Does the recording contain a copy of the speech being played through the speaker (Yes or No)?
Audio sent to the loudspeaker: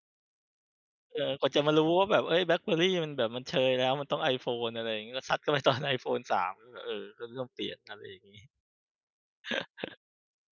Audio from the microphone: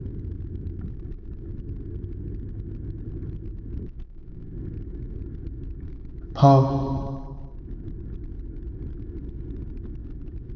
No